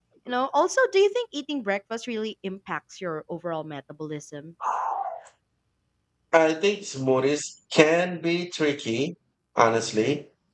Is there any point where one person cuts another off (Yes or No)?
No